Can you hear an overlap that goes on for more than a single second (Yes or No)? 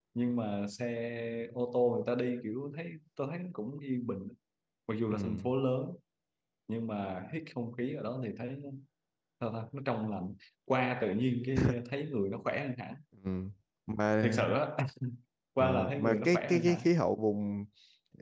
Yes